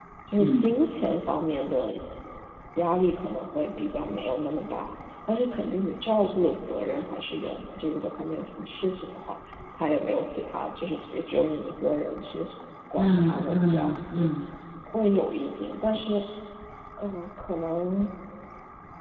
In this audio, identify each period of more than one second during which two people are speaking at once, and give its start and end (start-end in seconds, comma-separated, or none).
13.0-14.3